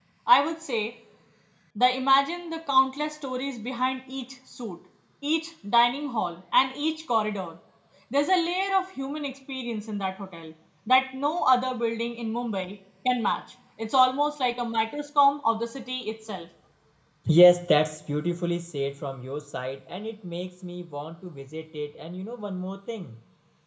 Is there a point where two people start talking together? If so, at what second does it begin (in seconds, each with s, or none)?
none